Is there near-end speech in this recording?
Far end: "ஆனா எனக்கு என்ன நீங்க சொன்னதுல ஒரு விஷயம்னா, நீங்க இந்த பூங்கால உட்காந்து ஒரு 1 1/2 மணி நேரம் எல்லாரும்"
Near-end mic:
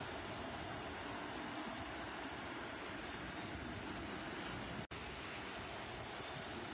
No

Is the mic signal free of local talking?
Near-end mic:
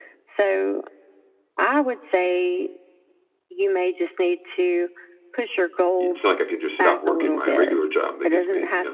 No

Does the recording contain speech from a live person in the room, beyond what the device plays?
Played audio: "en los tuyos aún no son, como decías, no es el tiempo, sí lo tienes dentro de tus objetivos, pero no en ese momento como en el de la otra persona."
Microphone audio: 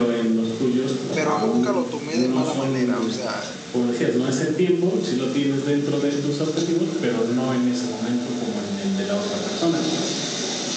Yes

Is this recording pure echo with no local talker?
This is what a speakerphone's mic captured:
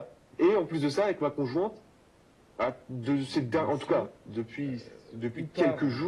No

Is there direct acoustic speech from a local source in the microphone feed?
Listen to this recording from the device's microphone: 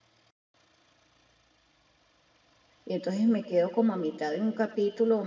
Yes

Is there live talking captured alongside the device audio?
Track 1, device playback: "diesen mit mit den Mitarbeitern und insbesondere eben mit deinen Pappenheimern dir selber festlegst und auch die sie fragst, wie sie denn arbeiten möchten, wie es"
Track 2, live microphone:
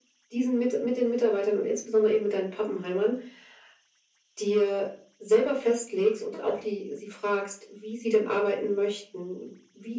No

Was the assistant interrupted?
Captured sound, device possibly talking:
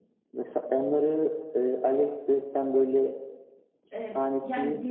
Yes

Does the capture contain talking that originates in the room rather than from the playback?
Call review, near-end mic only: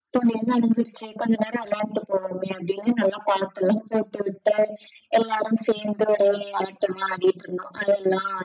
No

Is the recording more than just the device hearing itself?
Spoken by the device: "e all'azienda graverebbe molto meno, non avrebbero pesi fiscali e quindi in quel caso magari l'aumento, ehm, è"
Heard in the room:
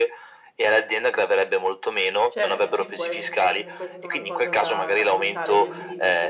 Yes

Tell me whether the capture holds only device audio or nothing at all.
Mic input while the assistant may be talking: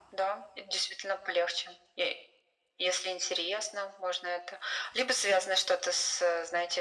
Yes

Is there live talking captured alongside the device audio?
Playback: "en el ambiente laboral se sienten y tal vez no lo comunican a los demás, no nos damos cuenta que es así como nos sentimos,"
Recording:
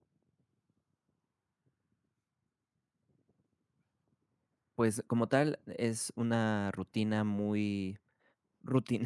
Yes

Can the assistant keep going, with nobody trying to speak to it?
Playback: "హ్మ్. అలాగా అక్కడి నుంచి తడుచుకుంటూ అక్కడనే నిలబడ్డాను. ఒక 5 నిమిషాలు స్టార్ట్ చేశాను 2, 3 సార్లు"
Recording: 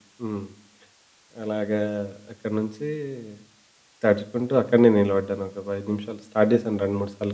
Yes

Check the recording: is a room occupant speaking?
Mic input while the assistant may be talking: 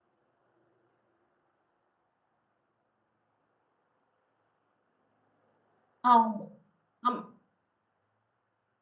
Yes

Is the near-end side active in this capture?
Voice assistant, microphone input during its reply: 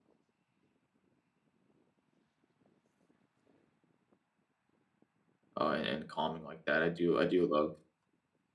Yes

